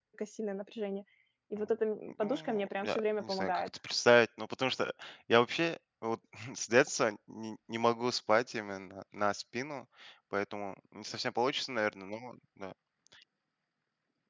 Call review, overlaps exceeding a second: present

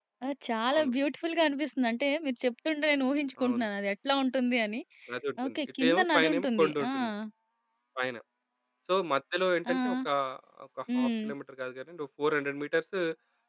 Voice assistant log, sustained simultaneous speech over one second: present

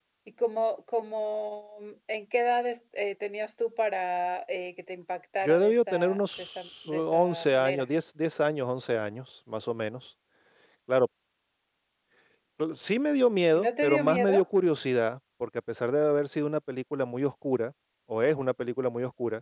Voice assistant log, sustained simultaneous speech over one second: present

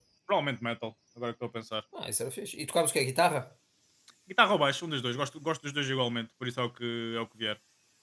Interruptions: none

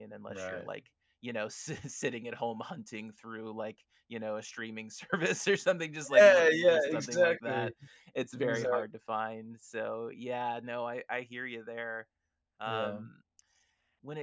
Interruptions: present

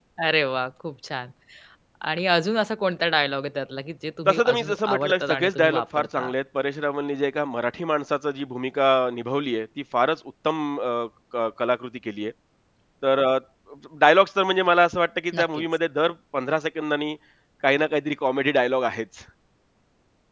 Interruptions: present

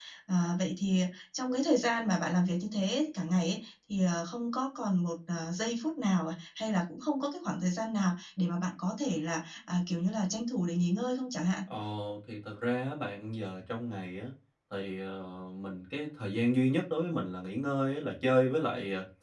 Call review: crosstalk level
none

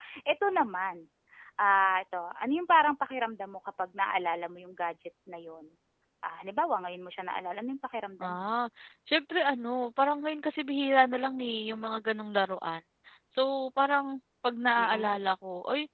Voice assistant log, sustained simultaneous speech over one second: none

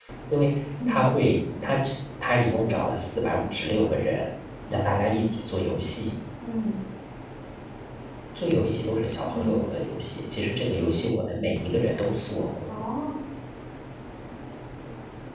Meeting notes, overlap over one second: none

